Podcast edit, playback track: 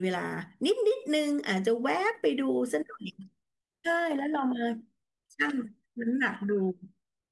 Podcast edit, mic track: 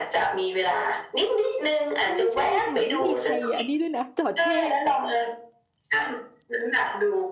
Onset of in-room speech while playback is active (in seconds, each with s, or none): 2.0 s